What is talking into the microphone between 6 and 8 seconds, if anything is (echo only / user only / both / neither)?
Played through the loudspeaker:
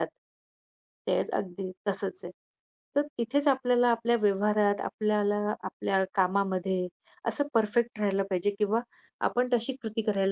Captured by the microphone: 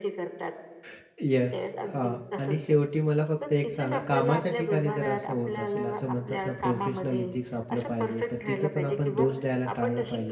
both